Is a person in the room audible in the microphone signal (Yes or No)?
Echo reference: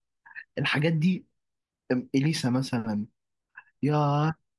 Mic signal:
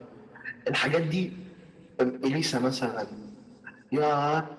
No